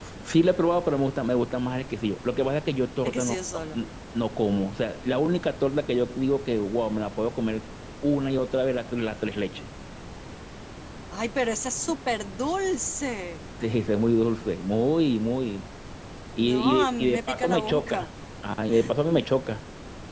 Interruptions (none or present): present